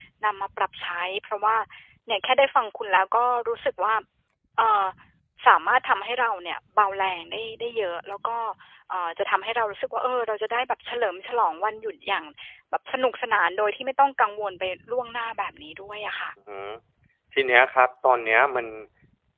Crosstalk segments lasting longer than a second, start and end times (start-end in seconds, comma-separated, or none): none